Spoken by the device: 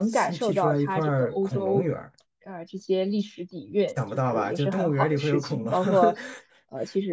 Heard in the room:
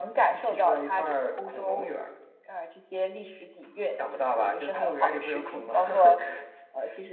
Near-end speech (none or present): none